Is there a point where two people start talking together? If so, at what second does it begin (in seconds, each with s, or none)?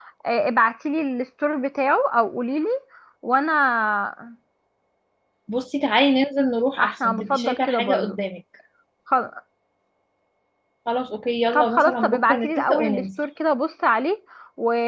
6.8 s